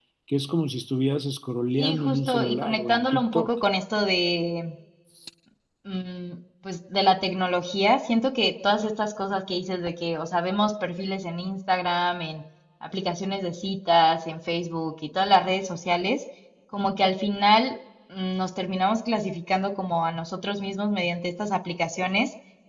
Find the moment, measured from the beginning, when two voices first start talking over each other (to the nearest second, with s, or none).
2 s